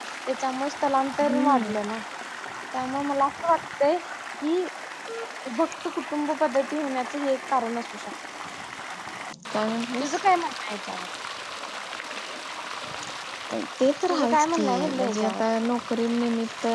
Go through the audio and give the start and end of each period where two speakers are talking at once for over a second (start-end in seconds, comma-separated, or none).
14.1-15.5